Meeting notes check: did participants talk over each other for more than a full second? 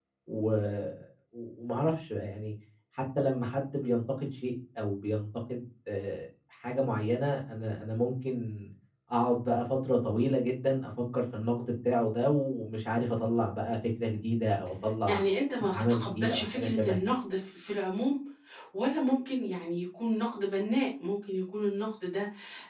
Yes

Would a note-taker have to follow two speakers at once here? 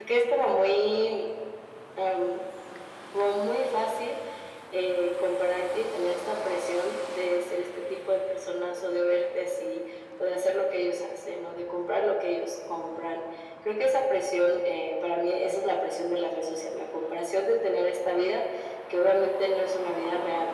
No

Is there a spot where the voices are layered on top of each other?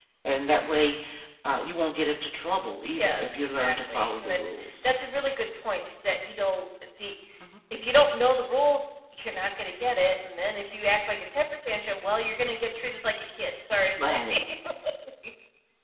Yes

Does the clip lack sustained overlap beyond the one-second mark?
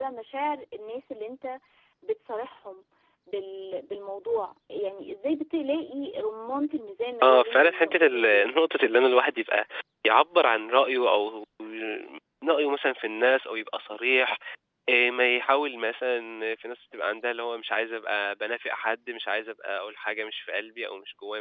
No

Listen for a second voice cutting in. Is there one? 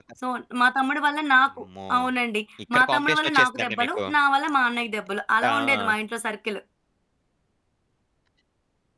Yes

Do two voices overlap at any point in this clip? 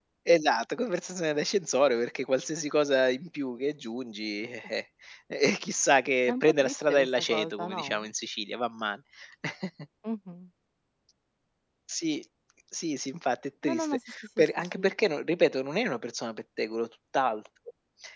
Yes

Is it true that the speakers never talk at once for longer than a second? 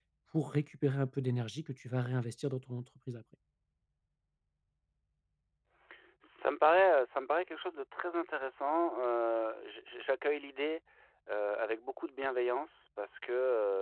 Yes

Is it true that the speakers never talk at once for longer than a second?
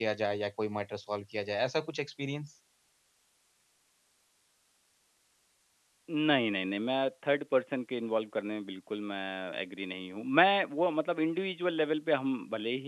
Yes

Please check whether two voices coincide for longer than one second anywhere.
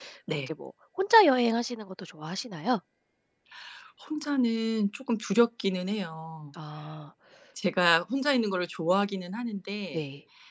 No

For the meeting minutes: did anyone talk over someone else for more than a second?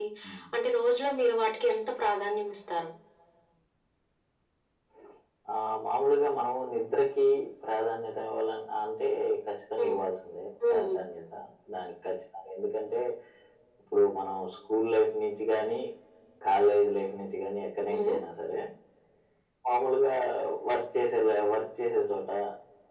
No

